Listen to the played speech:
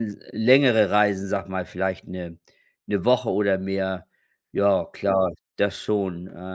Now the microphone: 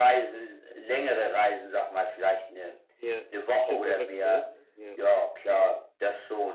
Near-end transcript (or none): Ja, ist schon verrückt, ne? Ja.